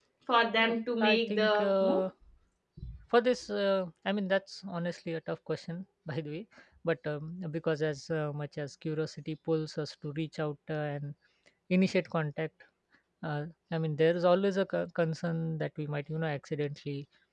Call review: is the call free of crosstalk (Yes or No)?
No